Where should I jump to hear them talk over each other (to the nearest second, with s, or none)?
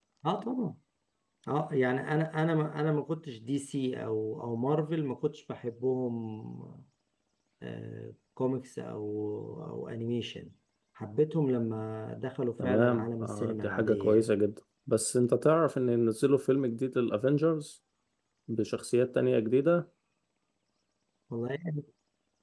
13 s